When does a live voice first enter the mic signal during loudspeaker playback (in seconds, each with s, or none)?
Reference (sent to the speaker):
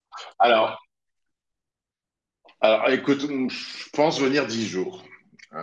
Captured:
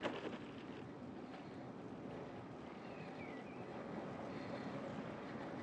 none